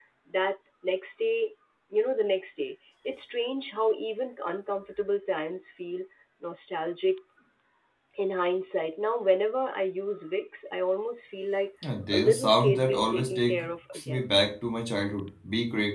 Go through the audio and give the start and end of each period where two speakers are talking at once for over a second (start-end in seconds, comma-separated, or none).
12.1-13.5